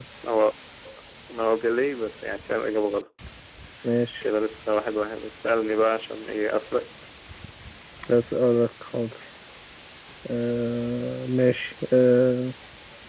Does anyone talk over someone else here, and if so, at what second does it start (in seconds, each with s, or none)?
none